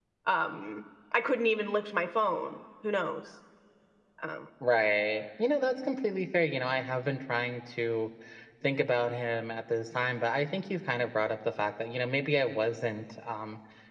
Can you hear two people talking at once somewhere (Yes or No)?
No